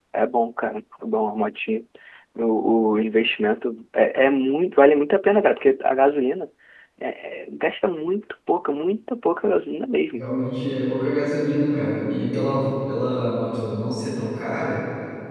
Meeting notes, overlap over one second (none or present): none